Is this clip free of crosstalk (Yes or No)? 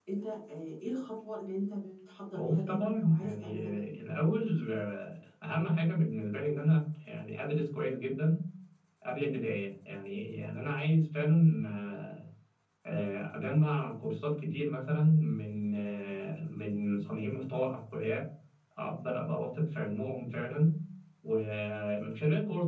No